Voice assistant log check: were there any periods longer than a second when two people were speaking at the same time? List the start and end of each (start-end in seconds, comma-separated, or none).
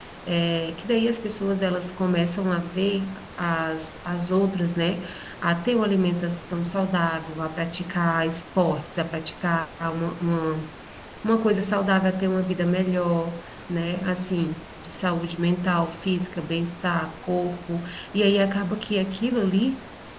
none